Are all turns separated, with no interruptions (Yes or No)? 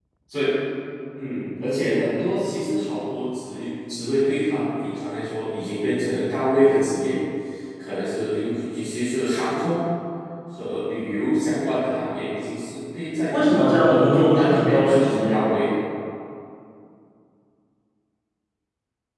No